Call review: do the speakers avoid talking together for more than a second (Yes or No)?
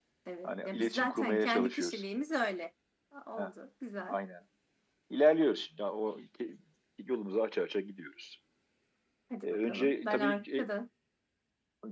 No